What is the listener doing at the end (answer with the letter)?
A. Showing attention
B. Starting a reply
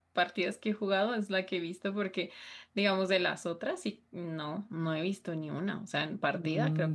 B